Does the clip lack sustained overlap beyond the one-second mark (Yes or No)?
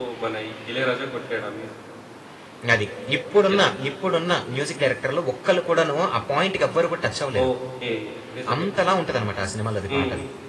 Yes